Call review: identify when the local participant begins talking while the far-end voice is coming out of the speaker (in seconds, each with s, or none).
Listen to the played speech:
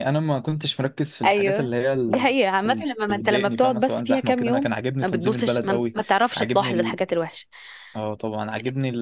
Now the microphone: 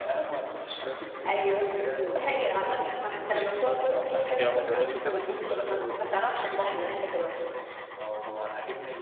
4.3 s